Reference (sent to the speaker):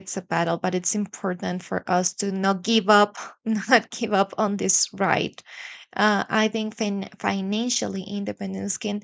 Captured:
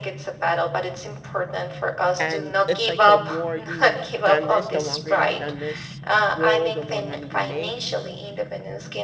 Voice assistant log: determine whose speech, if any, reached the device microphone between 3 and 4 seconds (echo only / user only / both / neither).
both